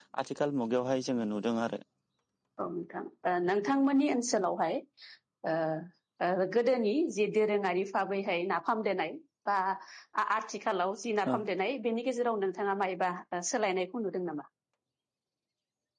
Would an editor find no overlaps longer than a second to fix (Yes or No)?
Yes